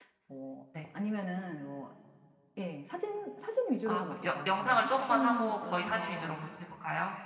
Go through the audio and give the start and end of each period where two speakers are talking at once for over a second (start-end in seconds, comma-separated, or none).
3.9-6.5